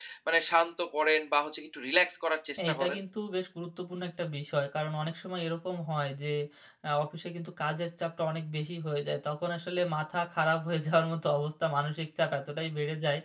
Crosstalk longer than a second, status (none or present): none